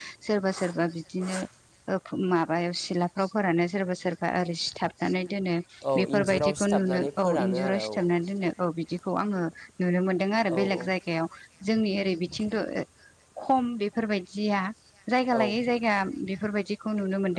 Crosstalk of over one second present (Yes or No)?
Yes